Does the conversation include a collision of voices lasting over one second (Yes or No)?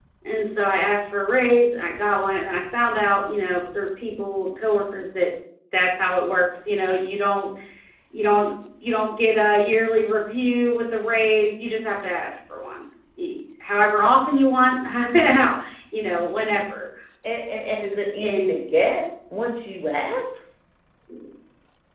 No